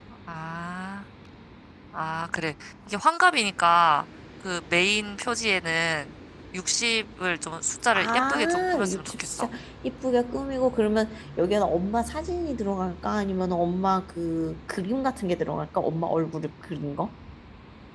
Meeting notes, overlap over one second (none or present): present